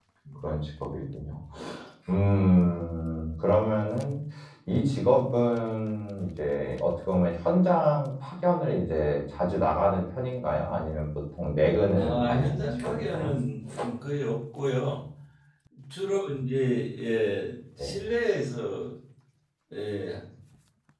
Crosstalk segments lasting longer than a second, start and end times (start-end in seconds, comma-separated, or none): 12.0-13.3